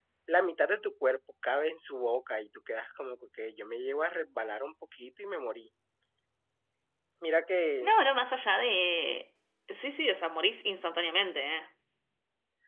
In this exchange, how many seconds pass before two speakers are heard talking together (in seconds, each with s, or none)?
none